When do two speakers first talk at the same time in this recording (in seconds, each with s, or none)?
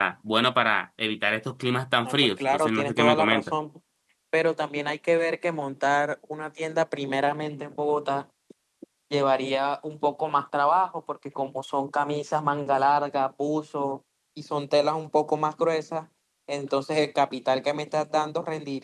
2.0 s